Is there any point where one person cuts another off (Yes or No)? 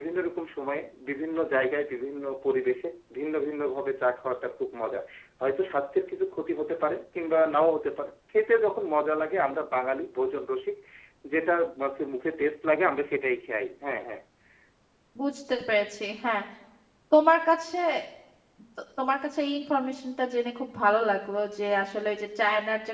No